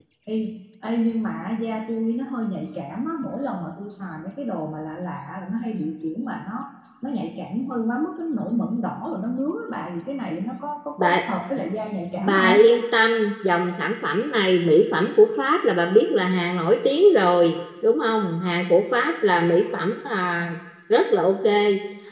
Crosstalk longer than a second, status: none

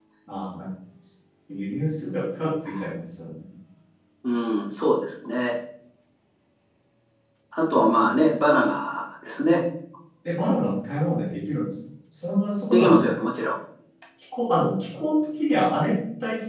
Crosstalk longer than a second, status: none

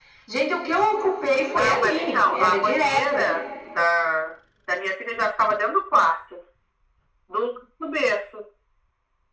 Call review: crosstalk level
present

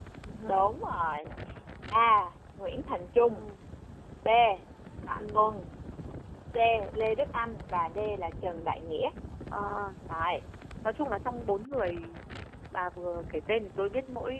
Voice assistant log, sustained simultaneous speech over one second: none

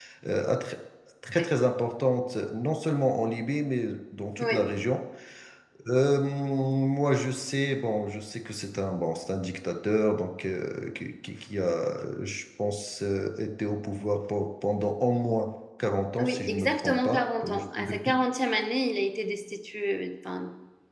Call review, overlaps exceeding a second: present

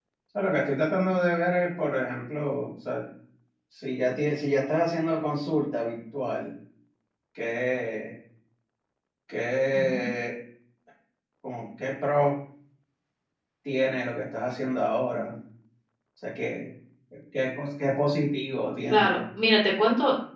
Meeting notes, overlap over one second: none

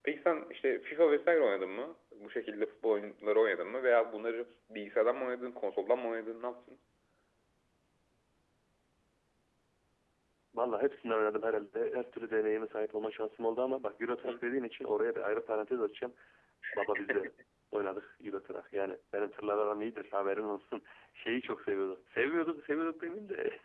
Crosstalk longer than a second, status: none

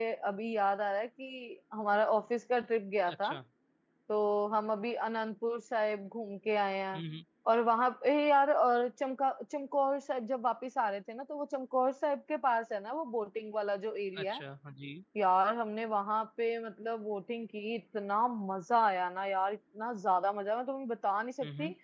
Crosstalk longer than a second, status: none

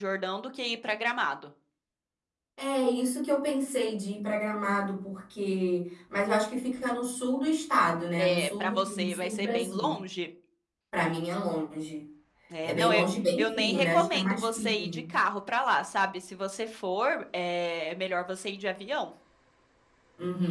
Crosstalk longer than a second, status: present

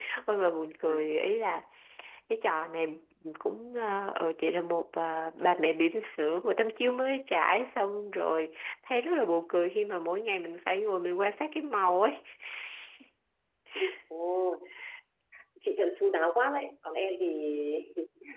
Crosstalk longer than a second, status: none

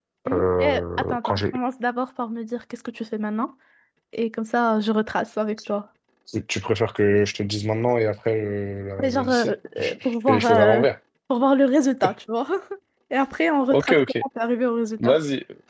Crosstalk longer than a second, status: present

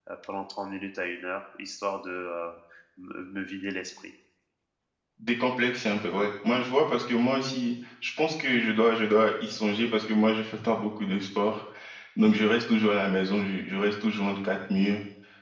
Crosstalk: none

